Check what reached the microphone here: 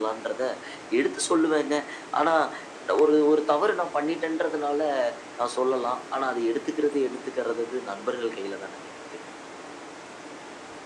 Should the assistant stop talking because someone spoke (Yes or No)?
No